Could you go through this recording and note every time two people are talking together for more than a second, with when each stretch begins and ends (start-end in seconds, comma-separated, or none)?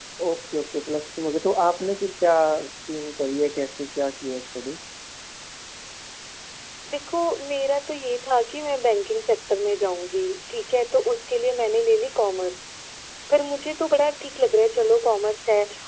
none